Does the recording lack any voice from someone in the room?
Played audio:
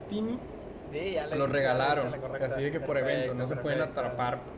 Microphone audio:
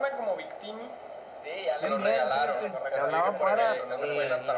No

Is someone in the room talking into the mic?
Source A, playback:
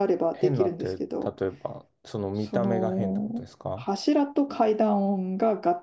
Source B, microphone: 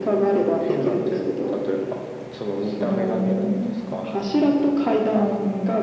No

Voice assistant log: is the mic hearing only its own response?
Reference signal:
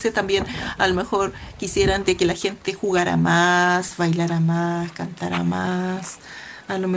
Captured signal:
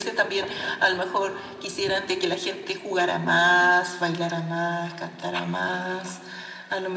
Yes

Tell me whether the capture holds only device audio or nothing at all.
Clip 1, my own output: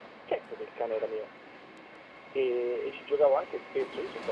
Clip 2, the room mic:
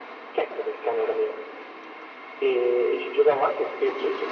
Yes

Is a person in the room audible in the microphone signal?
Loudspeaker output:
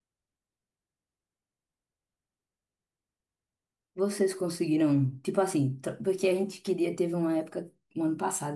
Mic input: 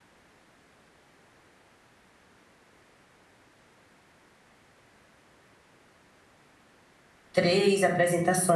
Yes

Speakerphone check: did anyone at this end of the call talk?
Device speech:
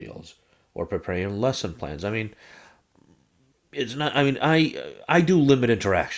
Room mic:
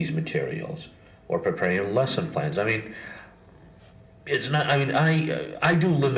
No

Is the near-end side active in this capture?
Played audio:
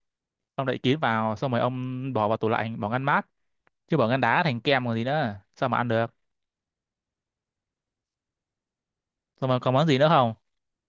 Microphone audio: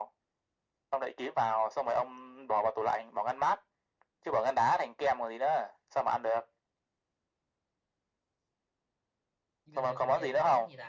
Yes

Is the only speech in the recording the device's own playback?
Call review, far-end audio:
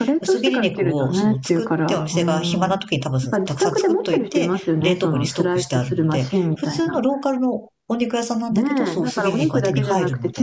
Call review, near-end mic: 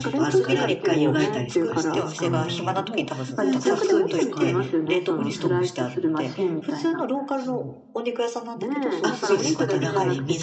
No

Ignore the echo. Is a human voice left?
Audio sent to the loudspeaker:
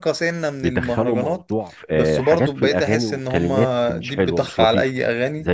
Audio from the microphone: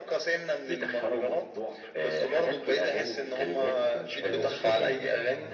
Yes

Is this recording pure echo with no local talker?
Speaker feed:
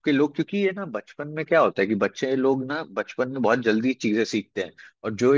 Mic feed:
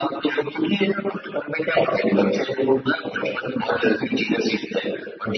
Yes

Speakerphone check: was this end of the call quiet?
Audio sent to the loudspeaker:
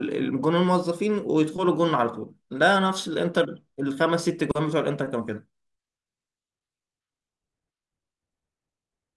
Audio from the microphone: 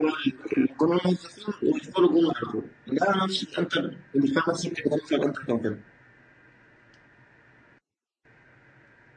Yes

